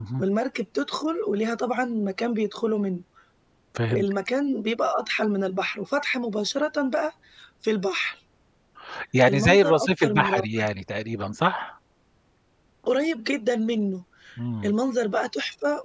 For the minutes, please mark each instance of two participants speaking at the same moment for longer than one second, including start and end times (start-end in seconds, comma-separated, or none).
9.3-10.7